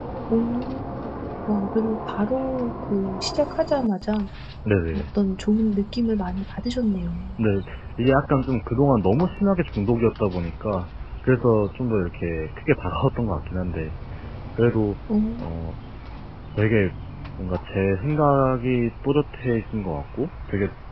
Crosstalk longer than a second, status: none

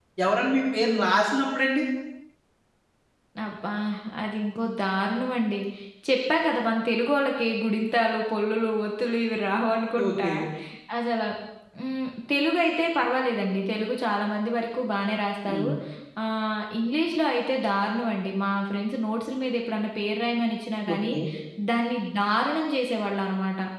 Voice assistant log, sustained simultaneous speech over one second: none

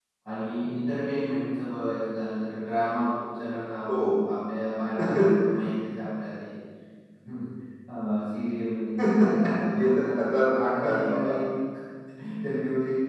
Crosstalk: present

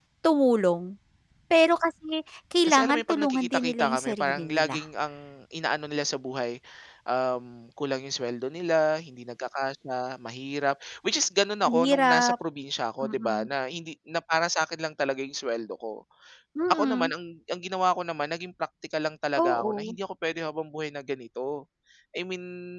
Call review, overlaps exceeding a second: present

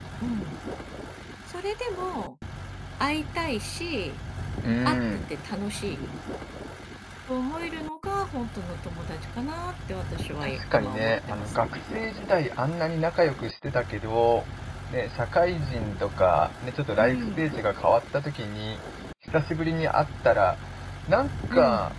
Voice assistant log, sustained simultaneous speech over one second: present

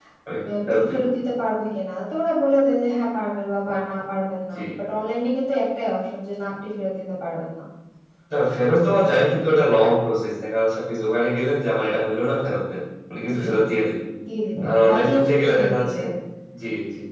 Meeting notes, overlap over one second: present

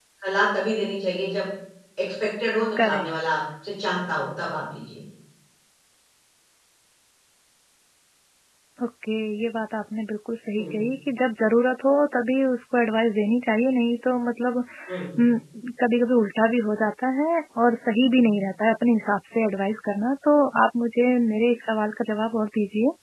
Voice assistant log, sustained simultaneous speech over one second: none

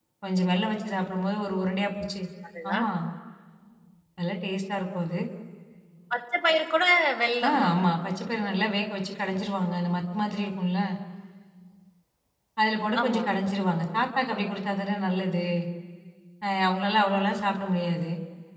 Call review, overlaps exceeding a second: none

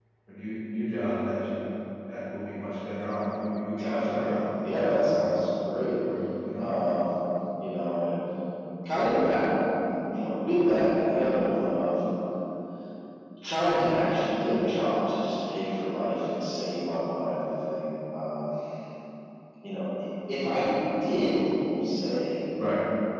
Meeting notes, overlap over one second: present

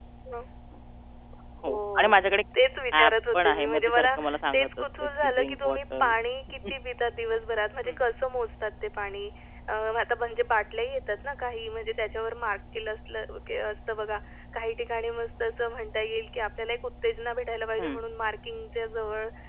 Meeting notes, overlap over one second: present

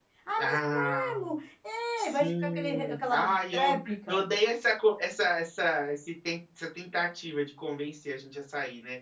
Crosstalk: present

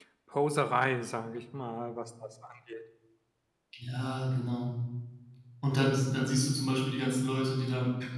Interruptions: none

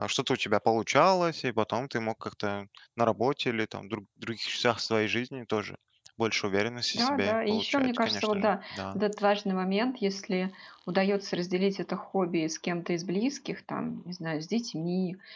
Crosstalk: present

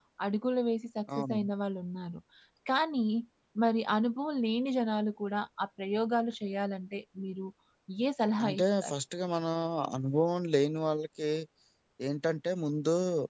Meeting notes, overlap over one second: none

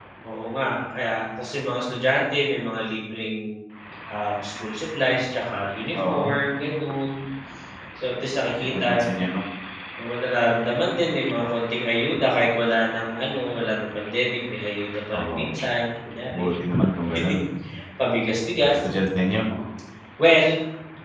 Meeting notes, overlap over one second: none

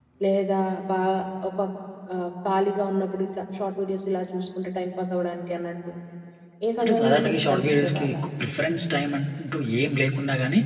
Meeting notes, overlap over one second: present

